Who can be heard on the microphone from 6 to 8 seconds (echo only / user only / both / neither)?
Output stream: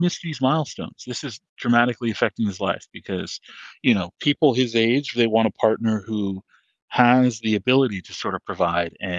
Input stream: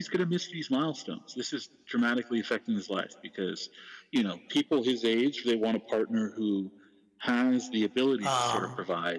echo only